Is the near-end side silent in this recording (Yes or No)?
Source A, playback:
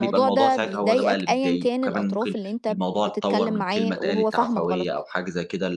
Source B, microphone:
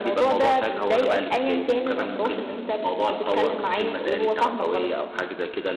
Yes